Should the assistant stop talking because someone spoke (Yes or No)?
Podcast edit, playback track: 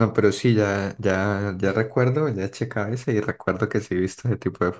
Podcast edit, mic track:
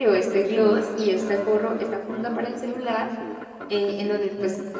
Yes